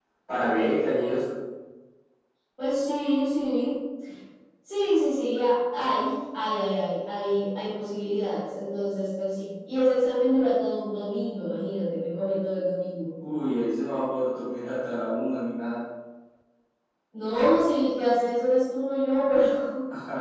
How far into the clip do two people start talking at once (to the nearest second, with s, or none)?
none